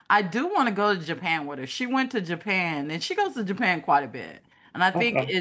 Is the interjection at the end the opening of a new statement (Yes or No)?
No